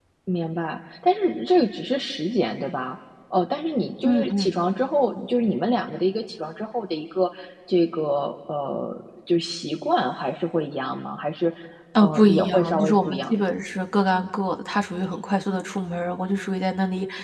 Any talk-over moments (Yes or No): Yes